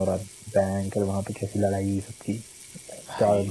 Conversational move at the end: listening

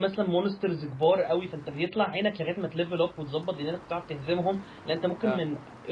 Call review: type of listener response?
listening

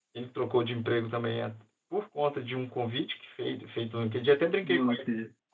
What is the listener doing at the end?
listening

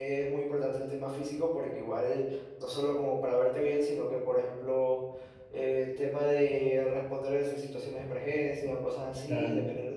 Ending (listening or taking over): listening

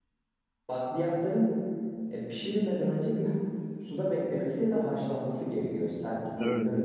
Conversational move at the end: taking over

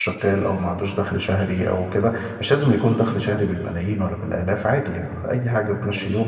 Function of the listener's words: listening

